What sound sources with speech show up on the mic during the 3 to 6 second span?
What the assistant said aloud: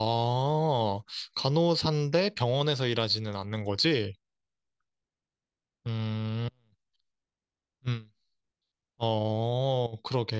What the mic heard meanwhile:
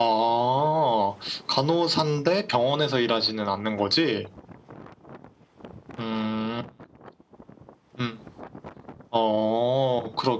echo only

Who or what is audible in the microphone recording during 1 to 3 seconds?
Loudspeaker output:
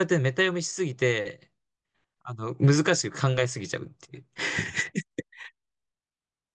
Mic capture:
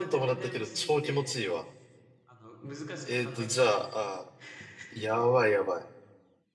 both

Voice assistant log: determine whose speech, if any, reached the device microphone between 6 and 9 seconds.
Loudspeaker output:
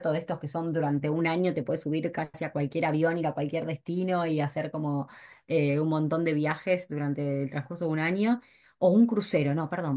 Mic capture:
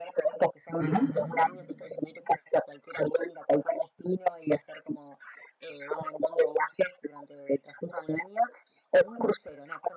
echo only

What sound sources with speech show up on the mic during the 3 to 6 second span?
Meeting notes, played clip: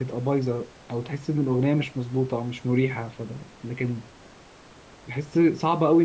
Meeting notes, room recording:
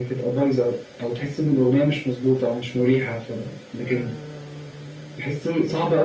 both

